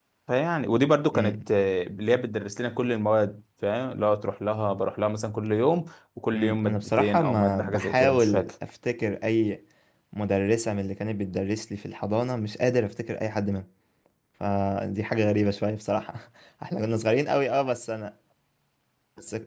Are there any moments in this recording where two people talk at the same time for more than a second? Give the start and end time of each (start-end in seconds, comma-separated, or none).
6.3-8.5